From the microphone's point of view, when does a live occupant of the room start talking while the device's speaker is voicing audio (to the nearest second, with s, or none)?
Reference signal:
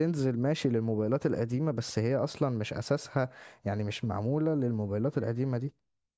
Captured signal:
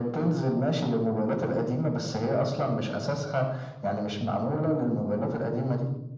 none